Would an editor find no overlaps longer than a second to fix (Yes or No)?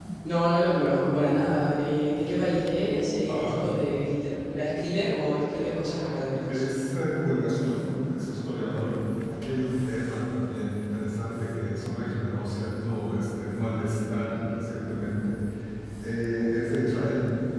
Yes